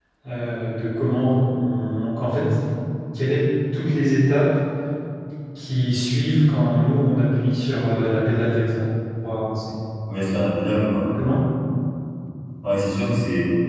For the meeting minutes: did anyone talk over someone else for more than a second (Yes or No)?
No